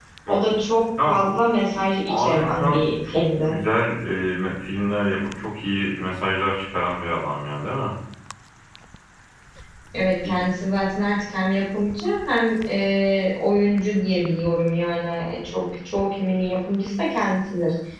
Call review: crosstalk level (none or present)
present